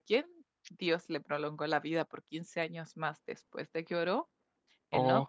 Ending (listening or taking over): listening